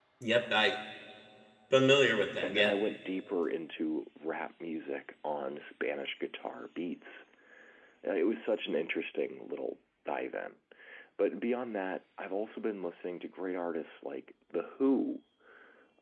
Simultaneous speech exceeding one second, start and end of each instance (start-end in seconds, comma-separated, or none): none